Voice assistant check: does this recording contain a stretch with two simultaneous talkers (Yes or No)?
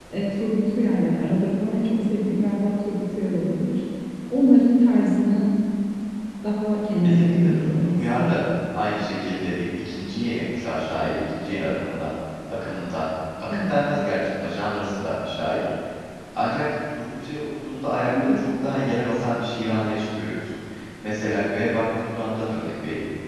Yes